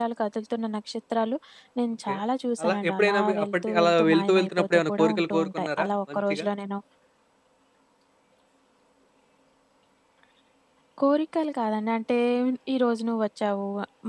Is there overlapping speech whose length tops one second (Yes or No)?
Yes